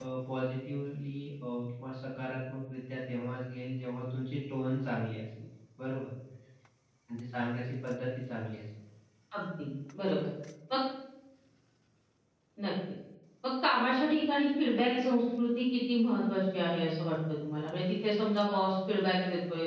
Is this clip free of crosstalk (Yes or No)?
Yes